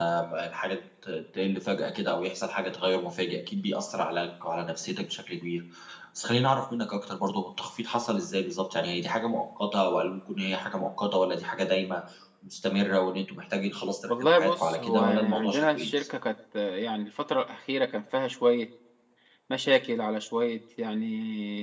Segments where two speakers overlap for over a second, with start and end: 14.1-16.0

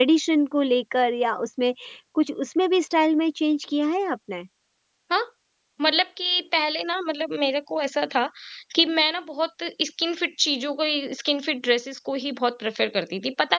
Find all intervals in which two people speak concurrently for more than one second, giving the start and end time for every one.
none

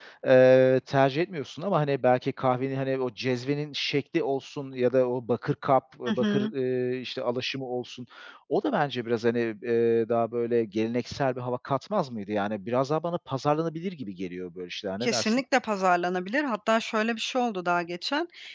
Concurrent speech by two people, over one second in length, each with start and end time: none

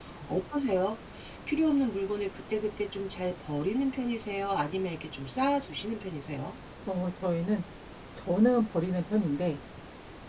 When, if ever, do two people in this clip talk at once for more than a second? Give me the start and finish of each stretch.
none

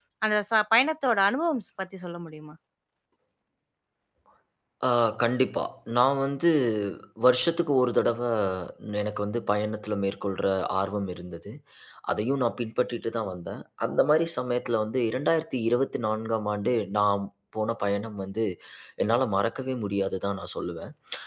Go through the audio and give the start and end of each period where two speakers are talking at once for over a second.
none

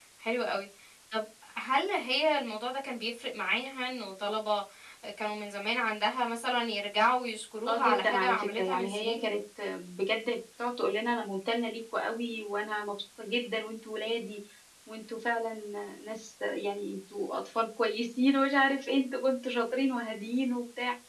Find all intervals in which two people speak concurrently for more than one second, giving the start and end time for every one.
7.7-9.2

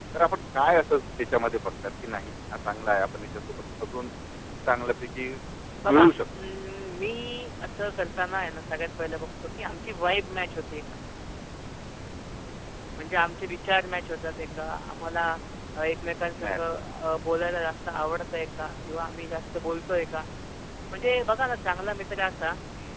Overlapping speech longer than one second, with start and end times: none

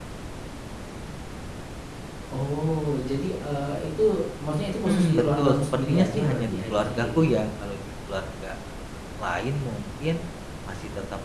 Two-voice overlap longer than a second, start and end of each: 4.8-7.4

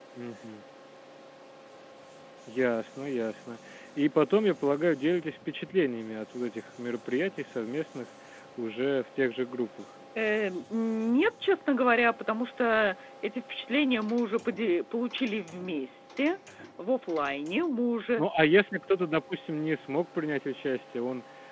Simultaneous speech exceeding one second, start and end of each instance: none

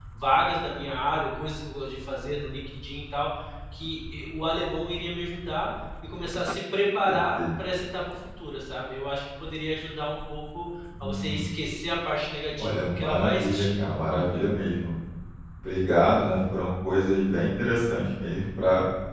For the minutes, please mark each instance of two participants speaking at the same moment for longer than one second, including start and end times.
12.6-14.4

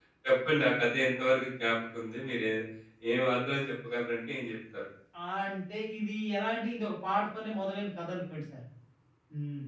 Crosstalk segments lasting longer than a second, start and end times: none

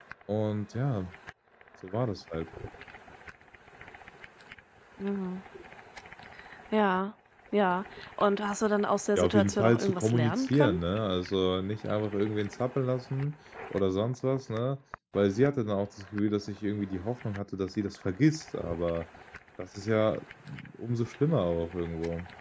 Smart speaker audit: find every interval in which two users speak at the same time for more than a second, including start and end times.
9.2-10.8

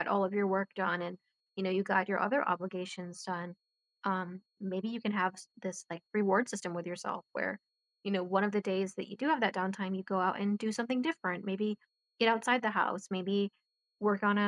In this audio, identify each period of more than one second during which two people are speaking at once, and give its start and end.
none

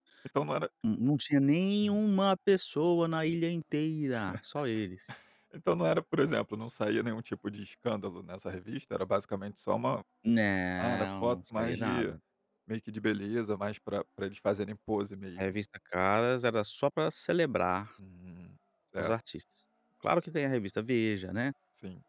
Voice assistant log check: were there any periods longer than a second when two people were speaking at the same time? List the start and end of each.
10.8-12.1

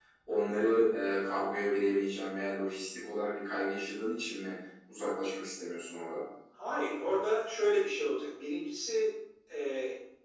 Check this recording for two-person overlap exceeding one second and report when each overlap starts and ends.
none

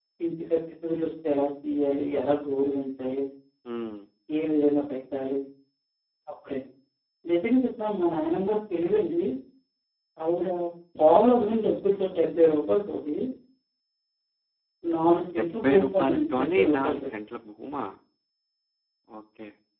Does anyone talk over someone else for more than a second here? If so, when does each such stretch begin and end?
15.4-17.0

